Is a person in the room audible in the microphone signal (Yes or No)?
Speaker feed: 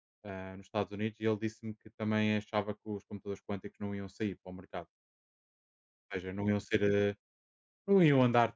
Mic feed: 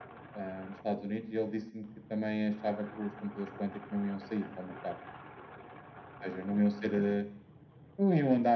No